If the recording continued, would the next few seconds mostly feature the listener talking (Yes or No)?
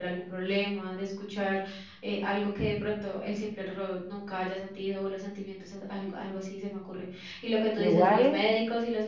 No